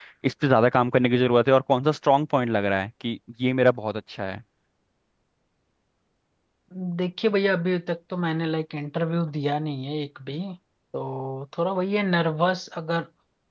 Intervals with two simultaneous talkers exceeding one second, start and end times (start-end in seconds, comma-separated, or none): none